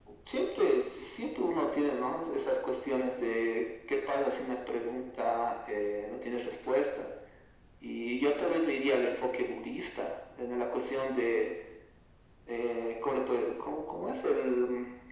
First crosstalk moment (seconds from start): none

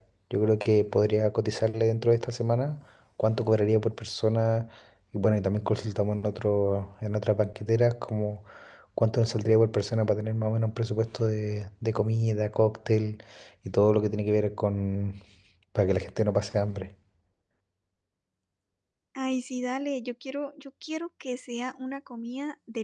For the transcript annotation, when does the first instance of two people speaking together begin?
none

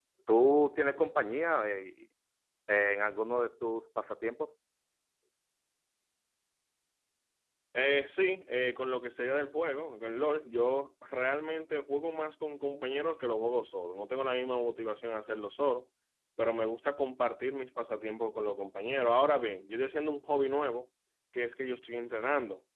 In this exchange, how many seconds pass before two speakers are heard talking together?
none

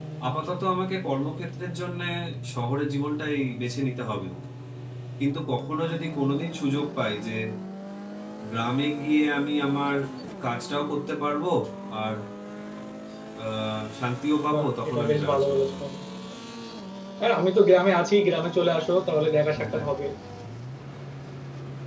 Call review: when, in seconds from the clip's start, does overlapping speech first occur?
15 s

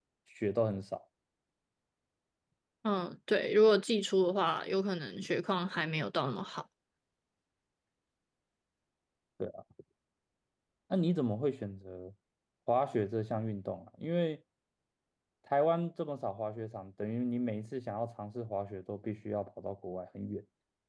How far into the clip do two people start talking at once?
none

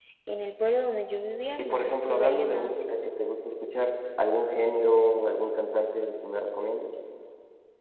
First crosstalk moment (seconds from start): 2 s

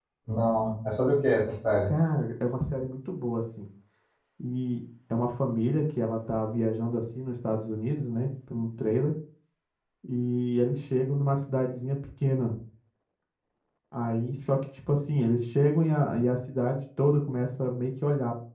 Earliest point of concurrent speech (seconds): none

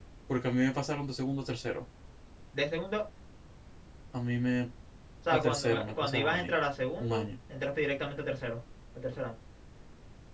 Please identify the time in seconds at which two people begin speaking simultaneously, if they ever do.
5 s

